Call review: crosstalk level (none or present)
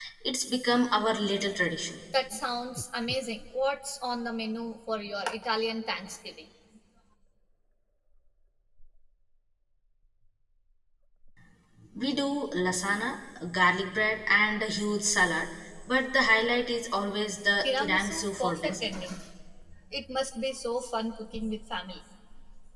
present